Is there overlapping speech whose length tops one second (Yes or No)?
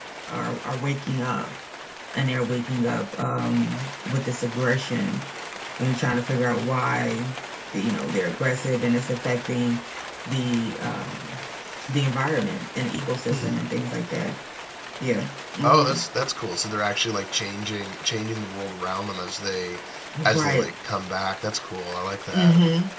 No